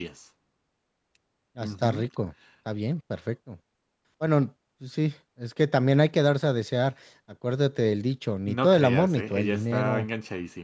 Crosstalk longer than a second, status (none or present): present